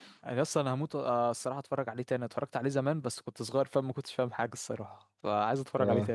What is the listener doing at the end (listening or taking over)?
taking over